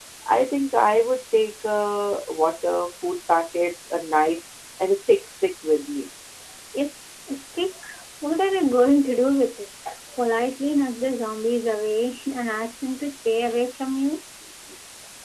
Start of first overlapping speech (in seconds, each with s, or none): none